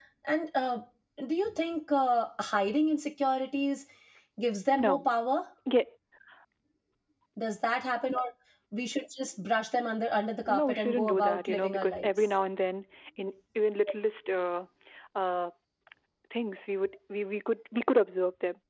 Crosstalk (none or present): present